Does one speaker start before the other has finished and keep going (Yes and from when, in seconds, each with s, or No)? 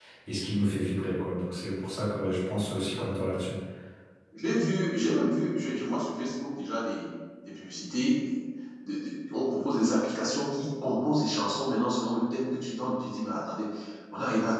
No